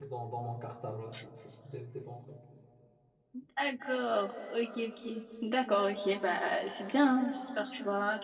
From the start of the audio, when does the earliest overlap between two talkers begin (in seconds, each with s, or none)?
none